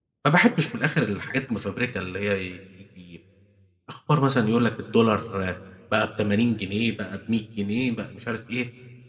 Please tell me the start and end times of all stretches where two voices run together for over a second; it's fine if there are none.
none

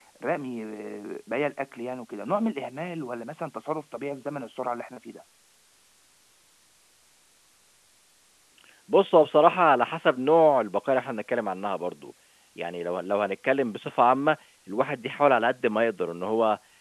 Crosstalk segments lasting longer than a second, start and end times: none

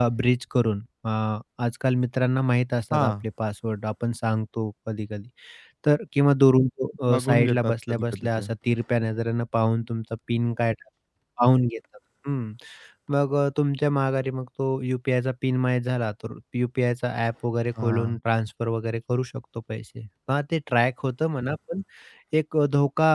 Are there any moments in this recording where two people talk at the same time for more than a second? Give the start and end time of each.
7.1-8.5

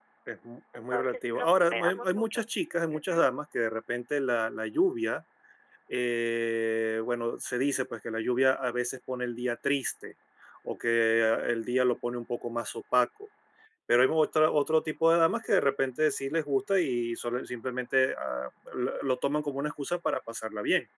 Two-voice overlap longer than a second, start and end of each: 0.8-2.4

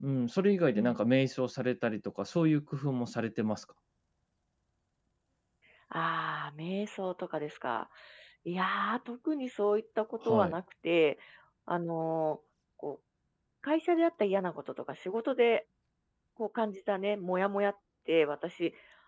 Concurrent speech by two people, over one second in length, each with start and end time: none

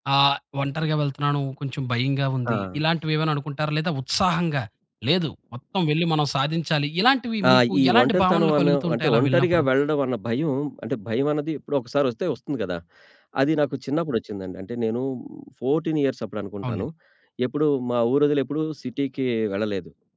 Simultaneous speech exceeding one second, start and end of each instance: 7.5-9.6

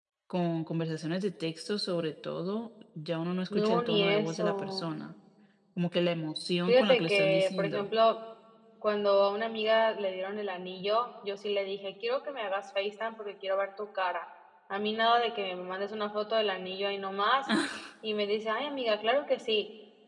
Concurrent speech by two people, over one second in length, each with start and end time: 3.5-4.9, 6.7-7.9

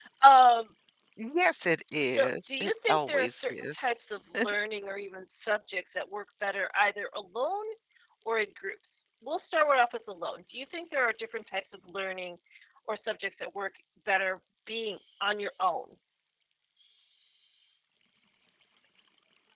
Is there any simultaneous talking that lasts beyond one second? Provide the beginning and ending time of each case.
2.0-3.9

